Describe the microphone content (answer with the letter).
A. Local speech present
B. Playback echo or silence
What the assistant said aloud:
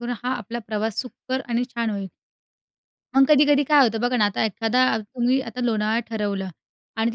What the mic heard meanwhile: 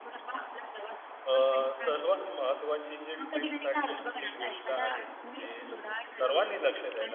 A